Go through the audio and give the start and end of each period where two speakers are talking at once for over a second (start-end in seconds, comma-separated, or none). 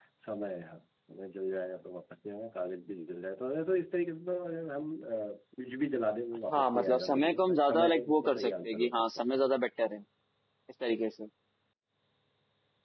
6.5-9.0